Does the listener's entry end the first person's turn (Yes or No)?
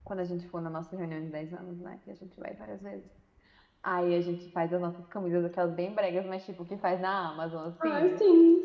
Yes